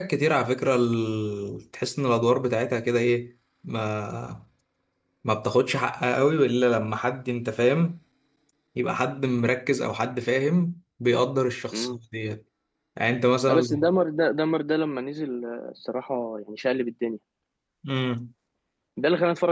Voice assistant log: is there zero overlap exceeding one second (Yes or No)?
Yes